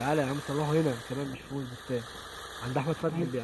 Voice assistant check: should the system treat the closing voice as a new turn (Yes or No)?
No